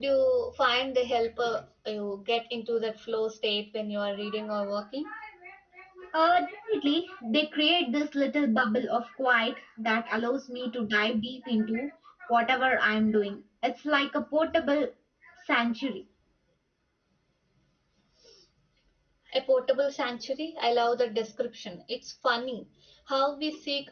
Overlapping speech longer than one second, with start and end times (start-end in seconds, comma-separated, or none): none